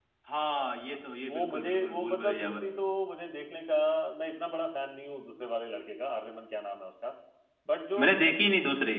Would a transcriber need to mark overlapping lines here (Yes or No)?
Yes